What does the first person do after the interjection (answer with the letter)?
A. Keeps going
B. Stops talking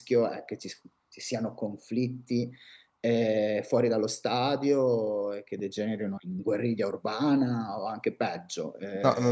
B